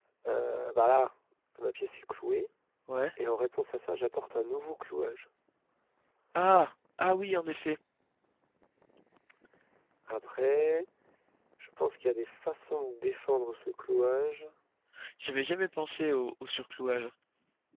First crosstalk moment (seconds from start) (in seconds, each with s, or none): none